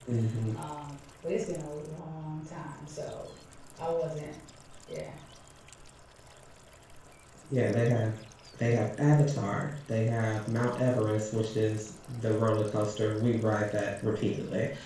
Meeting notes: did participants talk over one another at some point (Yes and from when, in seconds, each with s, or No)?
No